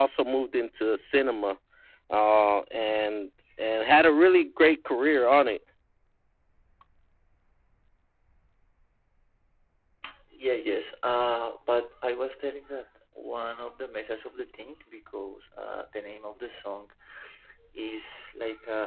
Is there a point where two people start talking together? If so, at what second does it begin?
none

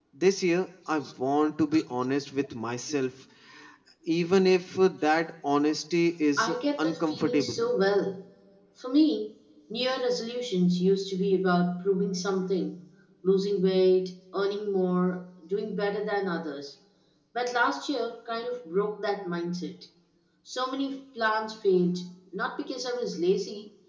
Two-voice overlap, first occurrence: 6 s

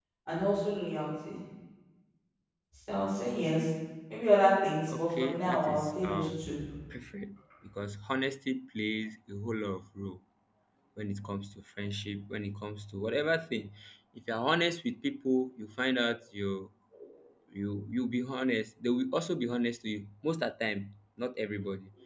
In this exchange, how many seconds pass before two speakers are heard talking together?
5 s

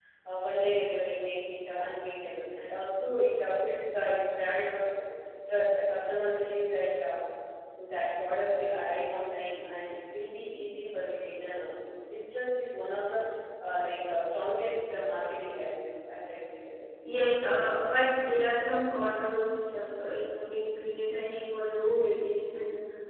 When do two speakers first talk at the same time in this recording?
none

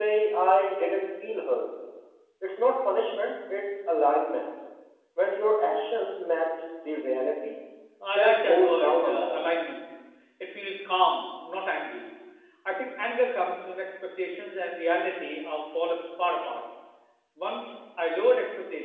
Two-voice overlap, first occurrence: 8 s

